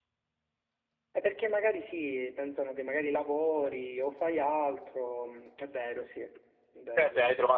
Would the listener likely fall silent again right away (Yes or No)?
No